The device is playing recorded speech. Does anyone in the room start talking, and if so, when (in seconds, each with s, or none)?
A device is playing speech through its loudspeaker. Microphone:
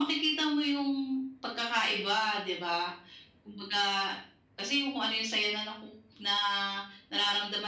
none